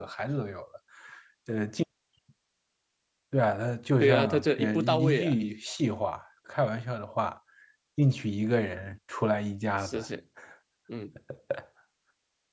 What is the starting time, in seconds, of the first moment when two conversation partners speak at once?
4 s

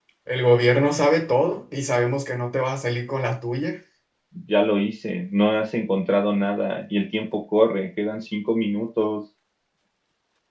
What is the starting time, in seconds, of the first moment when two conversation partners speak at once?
none

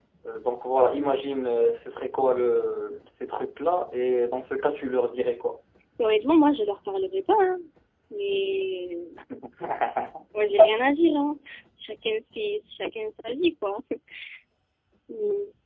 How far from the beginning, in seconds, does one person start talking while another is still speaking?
none

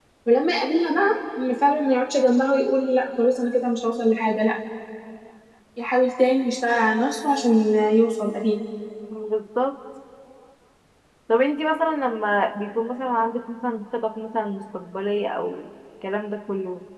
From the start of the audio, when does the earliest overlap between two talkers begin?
none

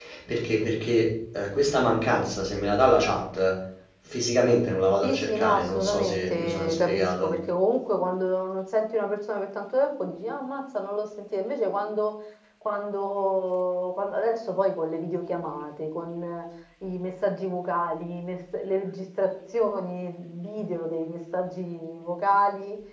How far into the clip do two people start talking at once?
5 s

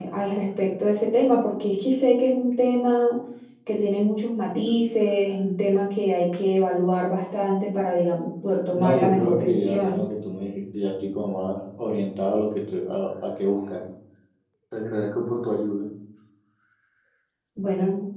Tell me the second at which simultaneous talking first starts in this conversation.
9 s

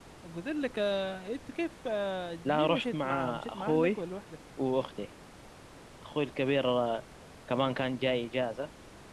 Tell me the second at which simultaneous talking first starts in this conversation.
2 s

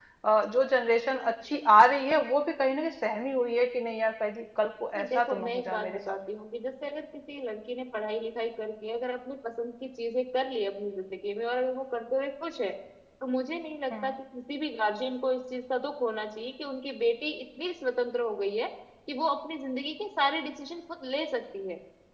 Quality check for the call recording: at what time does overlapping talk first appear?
5 s

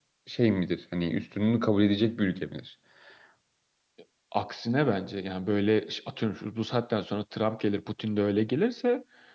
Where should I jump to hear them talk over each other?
none

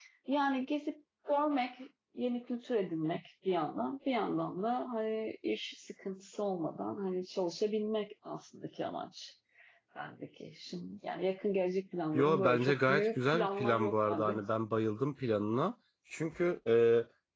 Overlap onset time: 12 s

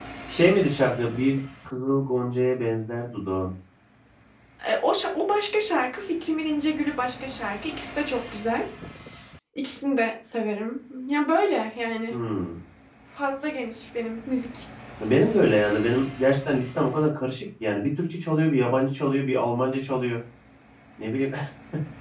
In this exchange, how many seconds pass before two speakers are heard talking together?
none

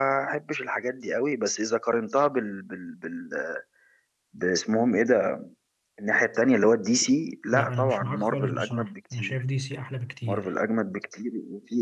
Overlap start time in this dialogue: 8 s

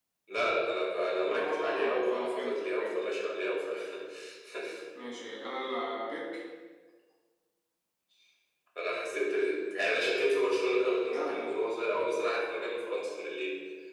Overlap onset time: 1 s

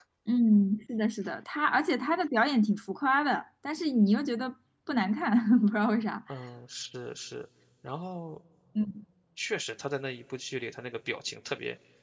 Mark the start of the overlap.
none

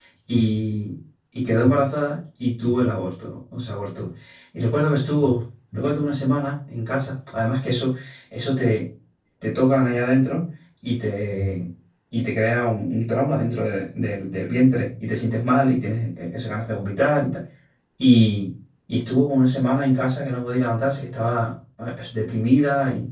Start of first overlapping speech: none

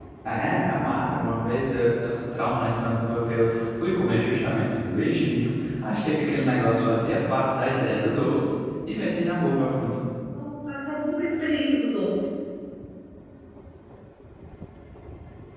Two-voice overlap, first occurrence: none

